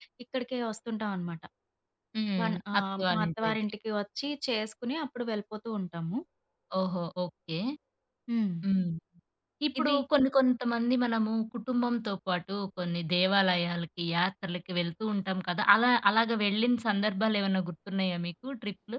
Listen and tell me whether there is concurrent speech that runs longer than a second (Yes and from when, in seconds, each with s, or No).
Yes, from 2.4 s